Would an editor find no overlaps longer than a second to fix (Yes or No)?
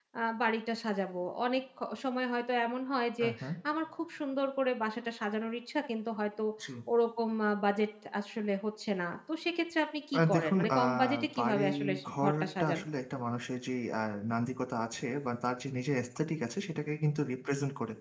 No